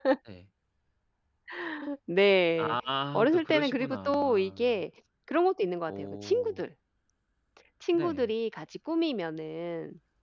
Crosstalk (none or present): present